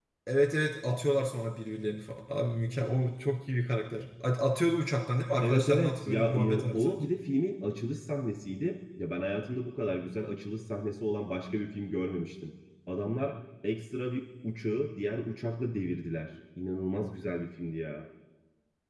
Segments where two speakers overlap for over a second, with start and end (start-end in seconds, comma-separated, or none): 5.4-7.1